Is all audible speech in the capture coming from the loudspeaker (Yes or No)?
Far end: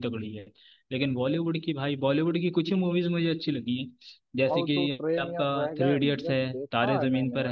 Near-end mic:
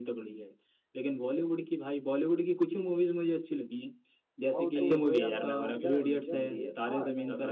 No